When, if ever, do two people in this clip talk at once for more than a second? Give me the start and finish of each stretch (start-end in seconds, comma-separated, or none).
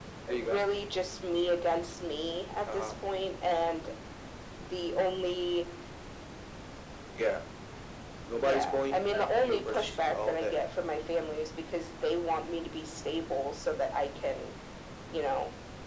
8.4-10.6